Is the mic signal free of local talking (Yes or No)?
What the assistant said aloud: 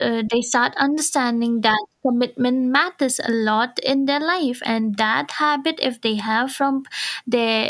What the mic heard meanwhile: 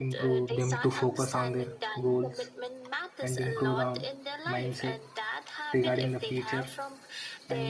No